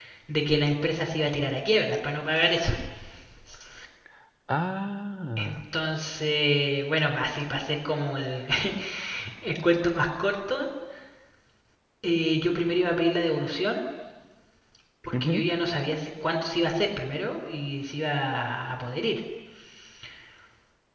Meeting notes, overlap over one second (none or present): none